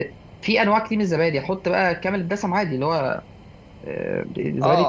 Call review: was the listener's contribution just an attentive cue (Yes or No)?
No